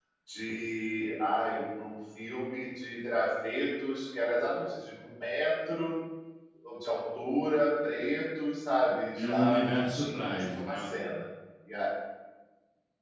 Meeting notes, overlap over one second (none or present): present